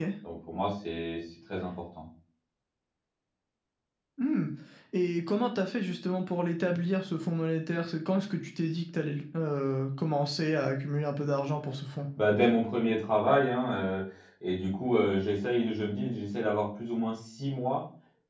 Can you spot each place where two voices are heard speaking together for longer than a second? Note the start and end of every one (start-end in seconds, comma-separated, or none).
none